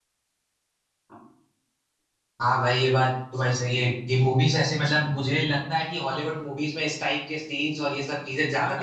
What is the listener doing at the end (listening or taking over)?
taking over